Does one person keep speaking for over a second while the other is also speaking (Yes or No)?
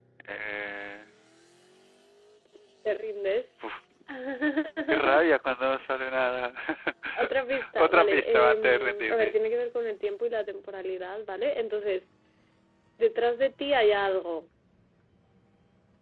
Yes